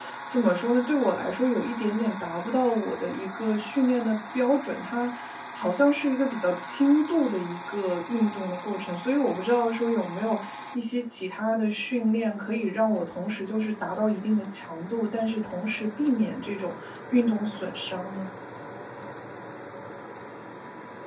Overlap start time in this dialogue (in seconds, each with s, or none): none